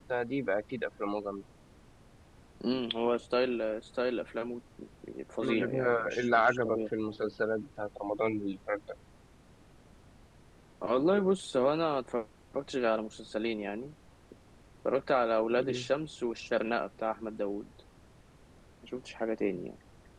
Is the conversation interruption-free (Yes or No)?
No